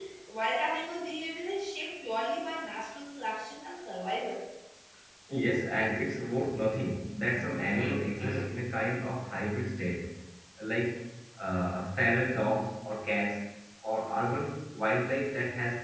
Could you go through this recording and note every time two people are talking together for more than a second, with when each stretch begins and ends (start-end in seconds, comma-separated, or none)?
none